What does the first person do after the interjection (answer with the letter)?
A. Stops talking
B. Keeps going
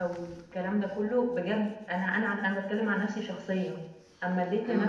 B